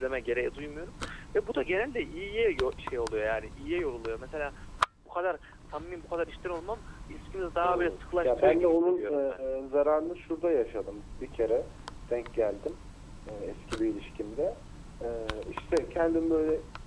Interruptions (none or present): present